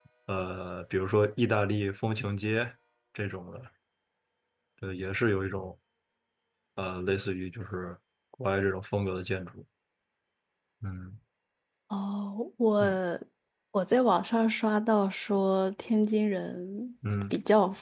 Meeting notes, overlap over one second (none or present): none